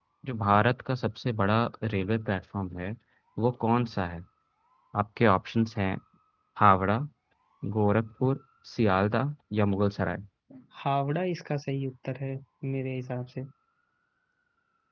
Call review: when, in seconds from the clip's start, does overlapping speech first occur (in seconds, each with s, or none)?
none